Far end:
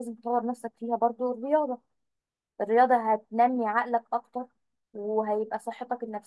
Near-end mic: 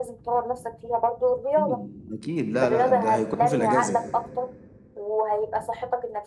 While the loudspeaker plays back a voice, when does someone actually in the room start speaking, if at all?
2 s

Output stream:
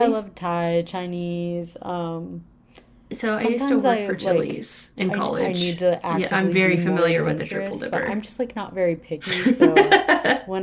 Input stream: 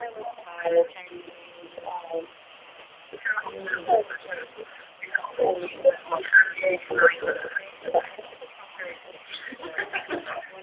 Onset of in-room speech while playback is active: 3 s

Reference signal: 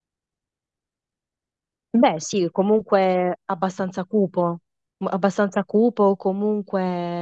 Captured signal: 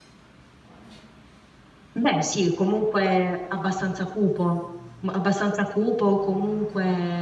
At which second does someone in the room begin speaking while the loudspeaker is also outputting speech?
none

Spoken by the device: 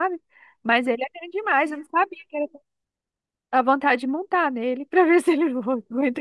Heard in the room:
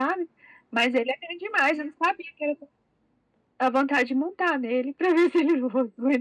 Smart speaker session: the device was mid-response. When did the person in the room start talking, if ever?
none

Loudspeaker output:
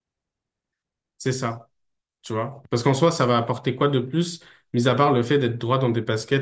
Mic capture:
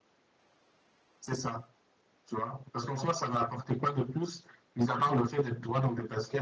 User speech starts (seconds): none

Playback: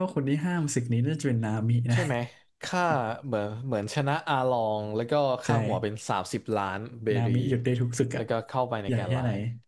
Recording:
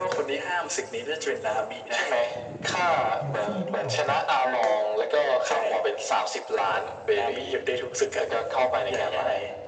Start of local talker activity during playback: 3 s

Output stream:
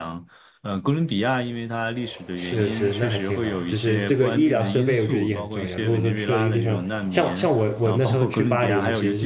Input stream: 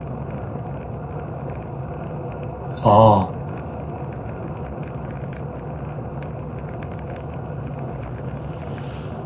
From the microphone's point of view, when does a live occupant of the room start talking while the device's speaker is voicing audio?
3 s

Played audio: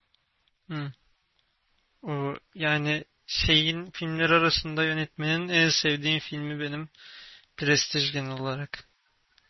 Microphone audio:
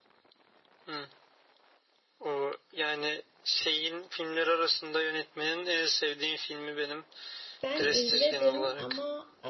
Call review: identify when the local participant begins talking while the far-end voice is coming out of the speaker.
8 s

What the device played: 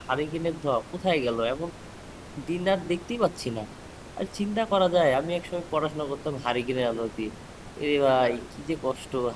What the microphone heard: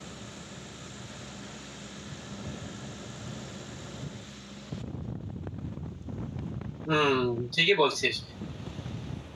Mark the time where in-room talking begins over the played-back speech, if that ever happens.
7 s

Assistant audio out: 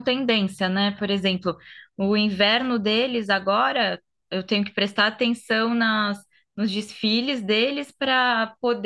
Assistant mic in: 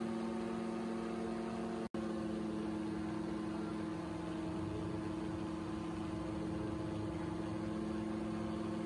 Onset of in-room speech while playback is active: none

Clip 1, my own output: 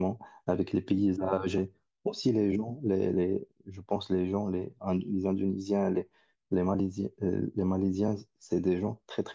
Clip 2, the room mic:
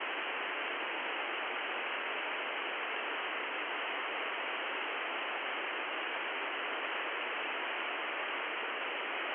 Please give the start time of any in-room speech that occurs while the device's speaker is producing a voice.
none

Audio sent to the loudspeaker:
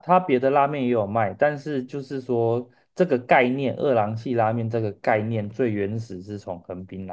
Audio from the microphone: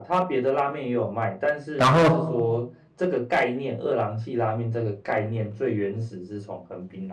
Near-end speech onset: 2 s

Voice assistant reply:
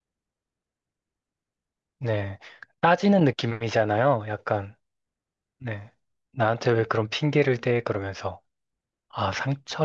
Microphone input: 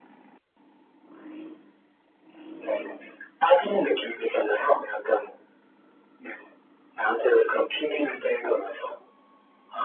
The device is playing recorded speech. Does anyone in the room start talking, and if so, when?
none

